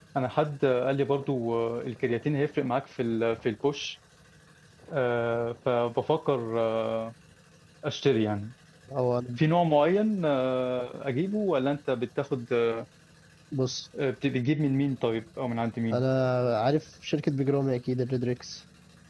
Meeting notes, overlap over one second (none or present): none